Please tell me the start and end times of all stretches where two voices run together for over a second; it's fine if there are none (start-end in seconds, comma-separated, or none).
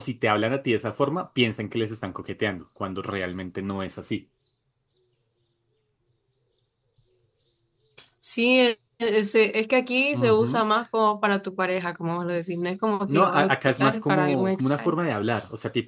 13.1-15.0